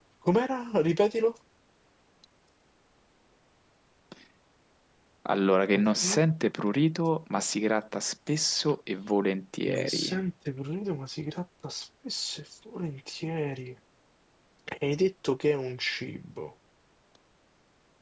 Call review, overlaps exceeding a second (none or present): none